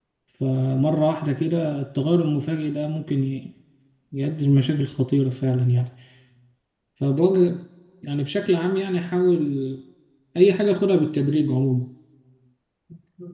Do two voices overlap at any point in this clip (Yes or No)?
No